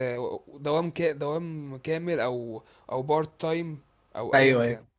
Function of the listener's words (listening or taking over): taking over